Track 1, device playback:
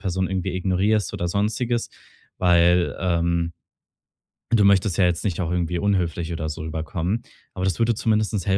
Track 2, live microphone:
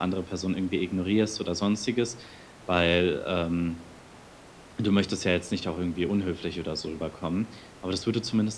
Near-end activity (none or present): none